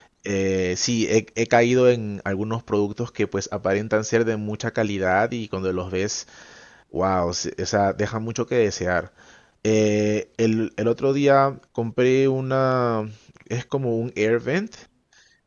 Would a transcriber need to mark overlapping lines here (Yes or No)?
No